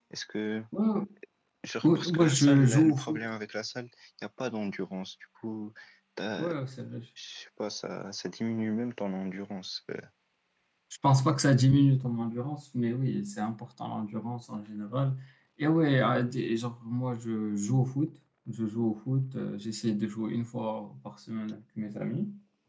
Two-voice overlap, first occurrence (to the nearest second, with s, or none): 2 s